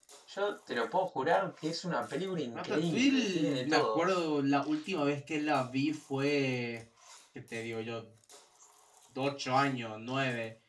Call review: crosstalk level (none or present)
present